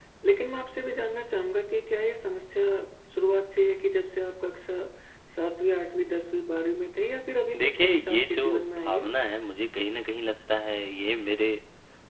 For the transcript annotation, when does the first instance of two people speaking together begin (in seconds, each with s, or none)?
7.5 s